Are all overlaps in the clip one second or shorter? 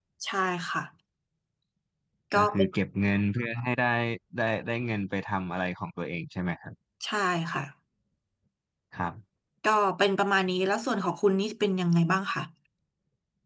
Yes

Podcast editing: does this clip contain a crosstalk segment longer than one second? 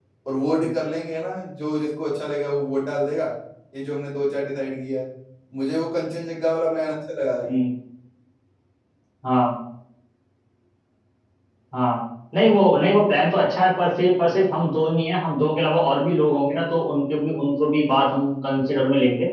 No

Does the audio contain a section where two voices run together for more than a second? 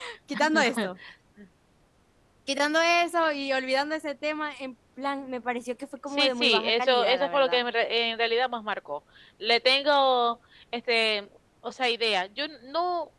Yes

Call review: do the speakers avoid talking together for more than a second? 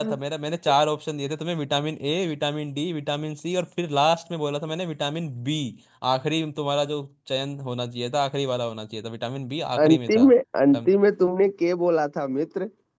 Yes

